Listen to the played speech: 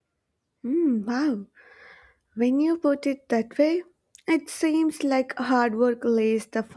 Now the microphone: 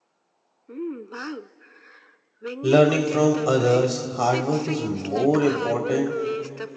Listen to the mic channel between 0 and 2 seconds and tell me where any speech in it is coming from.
echo only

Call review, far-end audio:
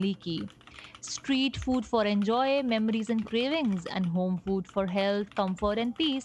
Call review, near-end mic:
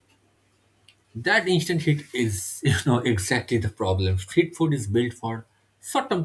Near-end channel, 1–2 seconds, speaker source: user only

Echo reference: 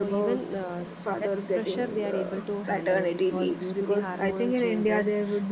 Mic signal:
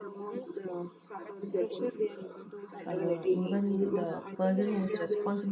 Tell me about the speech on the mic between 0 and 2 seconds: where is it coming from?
echo only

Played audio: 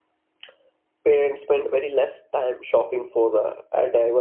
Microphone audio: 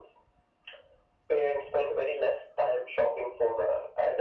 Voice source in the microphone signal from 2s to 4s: echo only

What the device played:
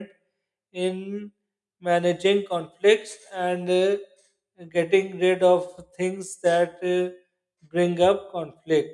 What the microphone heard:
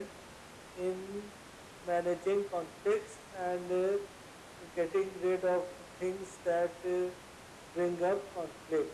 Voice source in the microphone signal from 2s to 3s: echo only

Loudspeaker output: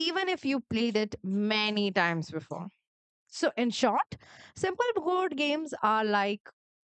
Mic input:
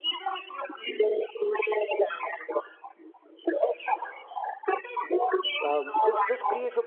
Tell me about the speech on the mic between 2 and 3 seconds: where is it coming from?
echo only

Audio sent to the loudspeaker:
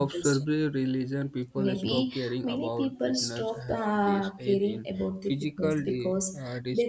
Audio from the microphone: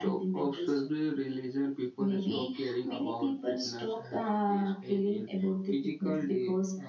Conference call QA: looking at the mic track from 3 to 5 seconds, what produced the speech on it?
echo only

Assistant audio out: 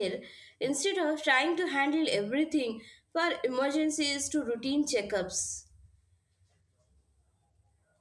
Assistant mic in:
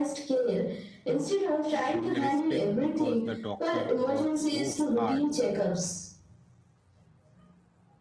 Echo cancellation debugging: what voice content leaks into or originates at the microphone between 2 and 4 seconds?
both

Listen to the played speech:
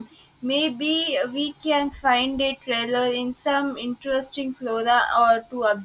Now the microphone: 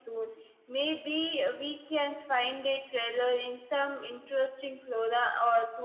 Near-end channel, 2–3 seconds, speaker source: echo only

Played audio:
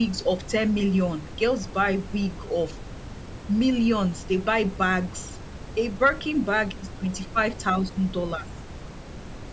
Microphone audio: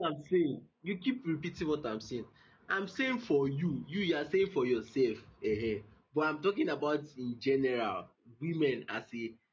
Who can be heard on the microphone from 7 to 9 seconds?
user only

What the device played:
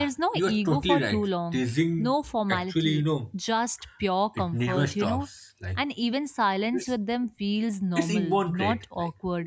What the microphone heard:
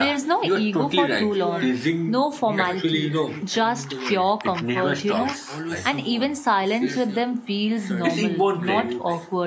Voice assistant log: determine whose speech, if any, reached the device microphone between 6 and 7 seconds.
both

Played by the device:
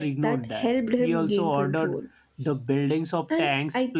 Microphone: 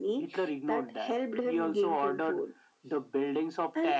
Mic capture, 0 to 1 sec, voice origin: echo only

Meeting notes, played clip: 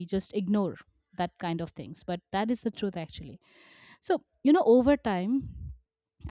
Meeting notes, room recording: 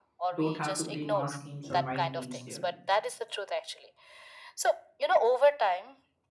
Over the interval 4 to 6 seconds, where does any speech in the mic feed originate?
echo only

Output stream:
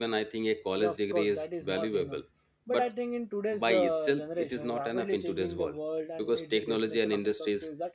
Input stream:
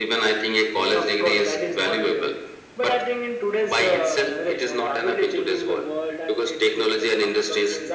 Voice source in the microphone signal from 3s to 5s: echo only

